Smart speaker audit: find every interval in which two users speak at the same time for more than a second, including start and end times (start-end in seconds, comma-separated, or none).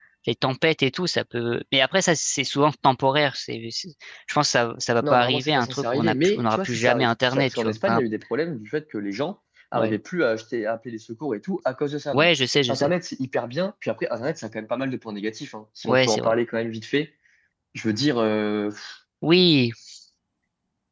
5.0-8.0